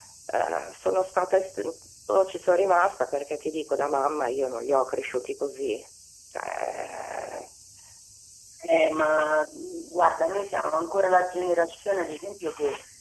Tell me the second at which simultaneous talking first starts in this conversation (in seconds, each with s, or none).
none